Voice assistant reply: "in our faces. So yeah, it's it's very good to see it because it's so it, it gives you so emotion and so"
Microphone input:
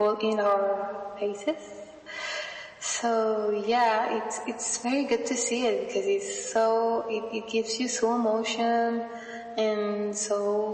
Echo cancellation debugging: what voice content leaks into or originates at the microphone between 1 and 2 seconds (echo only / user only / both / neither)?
echo only